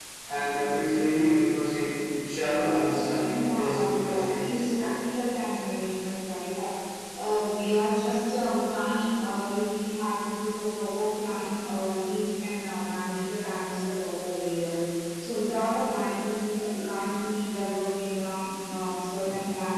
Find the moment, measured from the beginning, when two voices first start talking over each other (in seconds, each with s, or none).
3.4 s